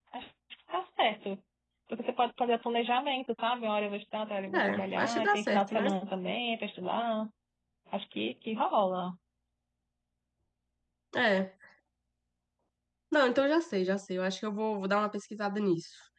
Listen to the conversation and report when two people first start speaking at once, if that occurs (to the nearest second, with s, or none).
4 s